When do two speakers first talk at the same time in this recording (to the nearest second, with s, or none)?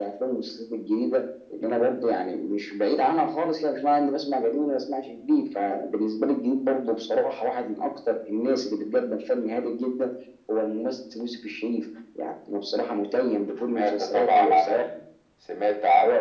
14 s